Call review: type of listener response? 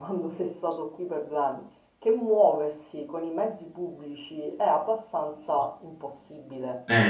listening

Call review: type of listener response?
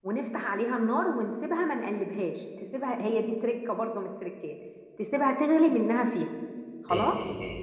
taking over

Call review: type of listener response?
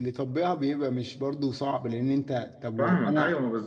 taking over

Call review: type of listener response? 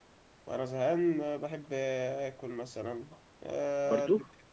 listening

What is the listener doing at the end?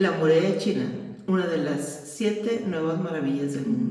taking over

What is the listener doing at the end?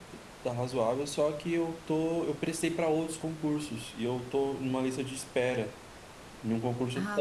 listening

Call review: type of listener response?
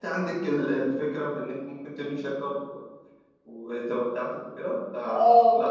taking over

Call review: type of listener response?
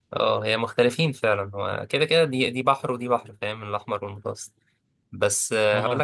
listening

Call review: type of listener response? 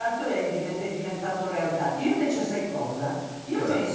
listening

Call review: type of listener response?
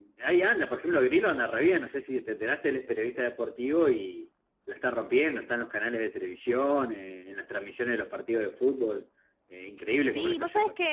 taking over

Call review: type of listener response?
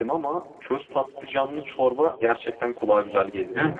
taking over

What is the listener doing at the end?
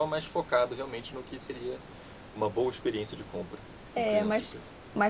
taking over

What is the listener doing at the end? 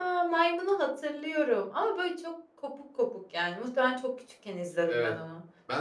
taking over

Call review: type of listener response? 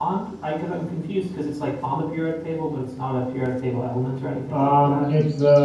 taking over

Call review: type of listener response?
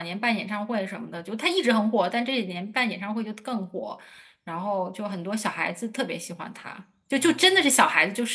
listening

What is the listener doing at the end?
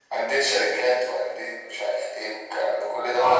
taking over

